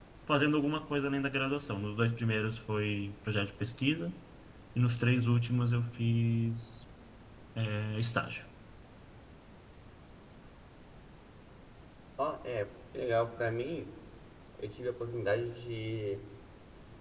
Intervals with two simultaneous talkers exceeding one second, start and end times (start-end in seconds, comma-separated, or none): none